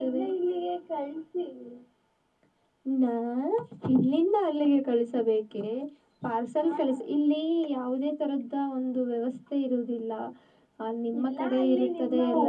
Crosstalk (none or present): present